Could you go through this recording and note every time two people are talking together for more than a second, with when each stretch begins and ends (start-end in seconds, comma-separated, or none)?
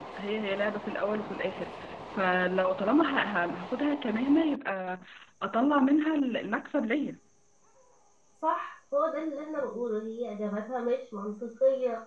none